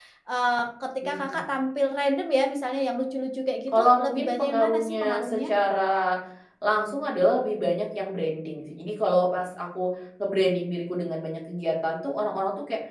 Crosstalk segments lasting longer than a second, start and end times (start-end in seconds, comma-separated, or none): 3.7-5.5